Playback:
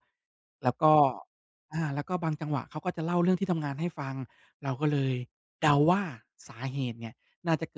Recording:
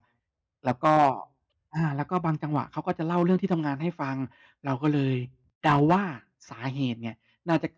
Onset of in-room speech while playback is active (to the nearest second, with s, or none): none